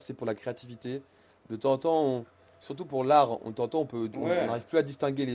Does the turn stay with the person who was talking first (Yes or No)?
Yes